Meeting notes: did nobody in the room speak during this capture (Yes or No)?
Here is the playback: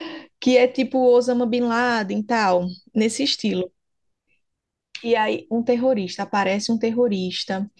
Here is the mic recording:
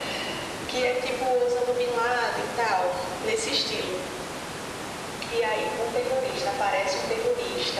Yes